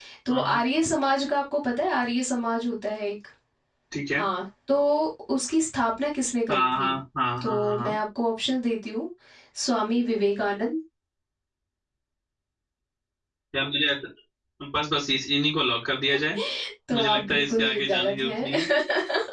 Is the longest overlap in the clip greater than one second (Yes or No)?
Yes